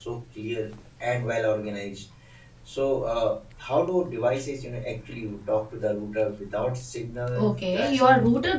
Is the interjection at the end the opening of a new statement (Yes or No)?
Yes